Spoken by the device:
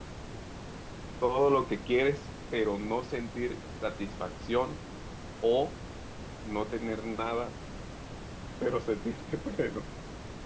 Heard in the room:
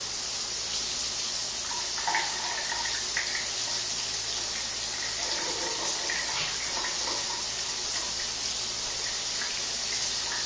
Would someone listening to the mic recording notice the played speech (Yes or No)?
No